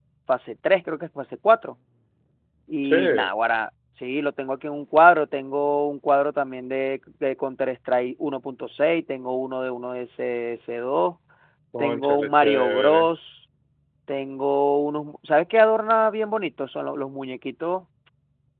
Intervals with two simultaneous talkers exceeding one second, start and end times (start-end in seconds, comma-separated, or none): 11.8-13.1